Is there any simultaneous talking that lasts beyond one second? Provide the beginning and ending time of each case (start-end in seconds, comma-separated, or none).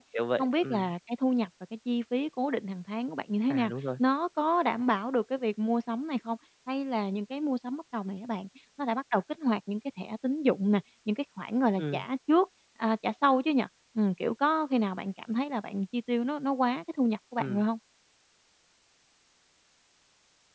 none